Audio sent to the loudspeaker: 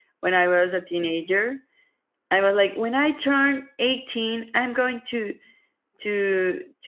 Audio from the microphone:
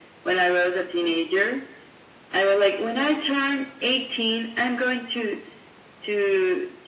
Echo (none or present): present